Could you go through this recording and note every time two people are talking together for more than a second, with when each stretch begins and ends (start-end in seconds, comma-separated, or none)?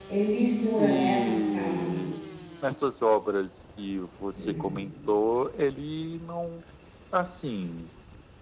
0.8-2.1